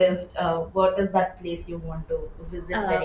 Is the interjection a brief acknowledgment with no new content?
No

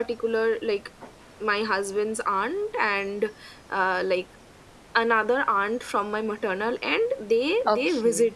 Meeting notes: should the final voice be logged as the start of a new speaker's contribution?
No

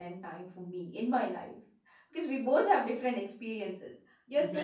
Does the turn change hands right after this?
No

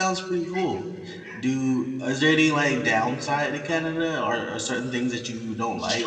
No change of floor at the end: No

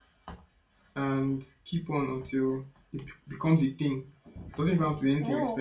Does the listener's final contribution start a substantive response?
No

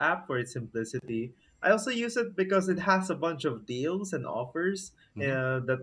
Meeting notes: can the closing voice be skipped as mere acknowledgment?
Yes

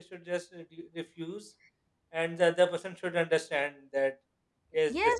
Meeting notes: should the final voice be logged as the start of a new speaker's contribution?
Yes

